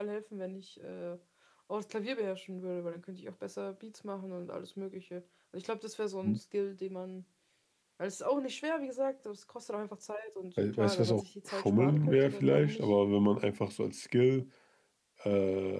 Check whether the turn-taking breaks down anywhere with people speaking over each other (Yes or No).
Yes